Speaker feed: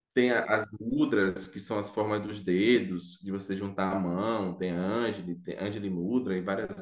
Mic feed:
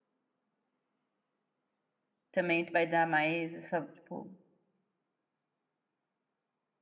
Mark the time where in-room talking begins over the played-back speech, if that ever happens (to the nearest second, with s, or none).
2 s